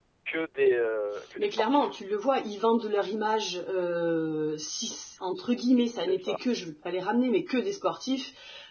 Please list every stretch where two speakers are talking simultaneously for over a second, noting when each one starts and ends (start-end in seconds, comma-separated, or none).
none